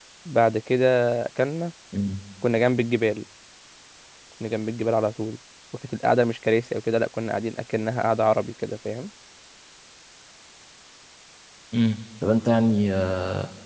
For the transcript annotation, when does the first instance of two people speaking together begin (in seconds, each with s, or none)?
none